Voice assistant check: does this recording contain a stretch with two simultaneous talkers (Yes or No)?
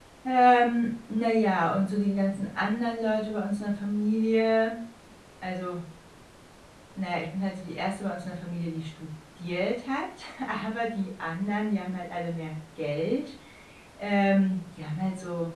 No